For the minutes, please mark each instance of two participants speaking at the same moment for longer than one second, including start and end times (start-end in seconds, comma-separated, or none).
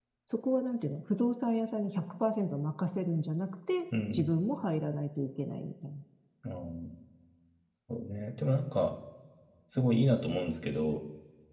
none